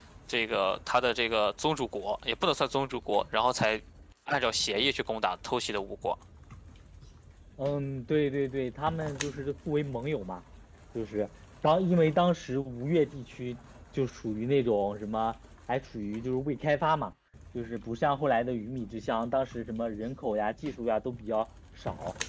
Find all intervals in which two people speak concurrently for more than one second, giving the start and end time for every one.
none

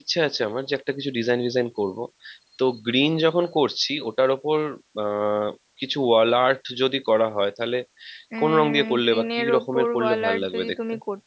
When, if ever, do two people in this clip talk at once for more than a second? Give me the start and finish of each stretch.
8.4-10.8

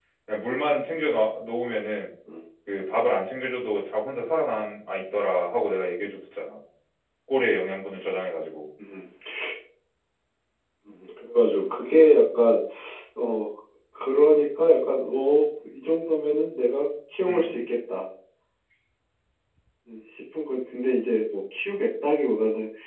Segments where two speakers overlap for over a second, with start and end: none

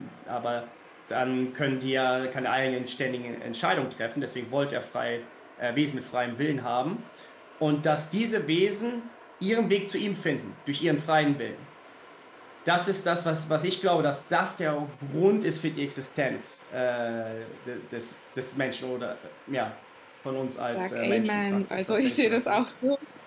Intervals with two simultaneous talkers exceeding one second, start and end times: 20.7-22.6

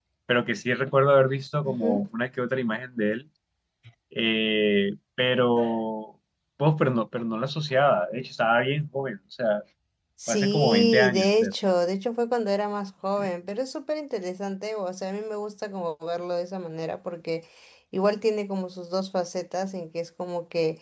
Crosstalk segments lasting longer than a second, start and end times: 10.3-11.5

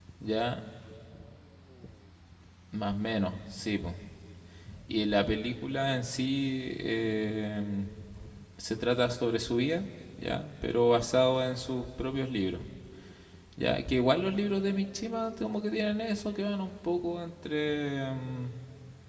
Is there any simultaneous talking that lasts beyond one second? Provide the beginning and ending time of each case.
none

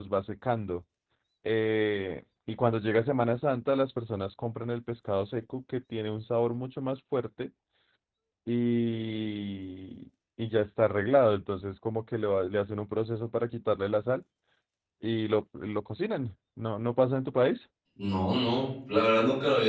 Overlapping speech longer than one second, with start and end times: none

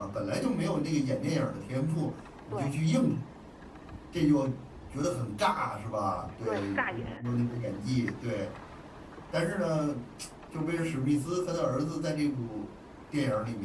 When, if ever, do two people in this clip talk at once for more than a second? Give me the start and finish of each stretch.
6.5-7.7

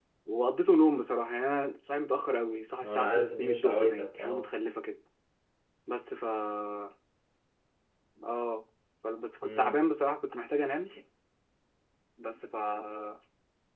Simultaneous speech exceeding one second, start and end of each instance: 2.8-4.5

